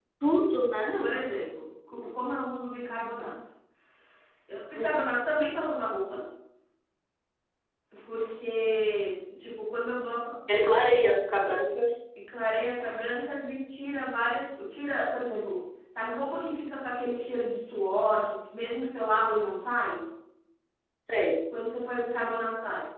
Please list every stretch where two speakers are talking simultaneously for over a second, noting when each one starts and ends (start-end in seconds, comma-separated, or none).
none